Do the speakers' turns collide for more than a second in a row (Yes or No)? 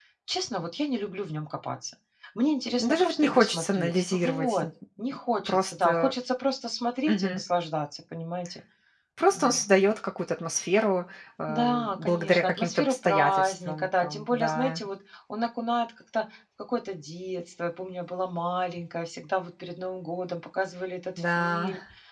Yes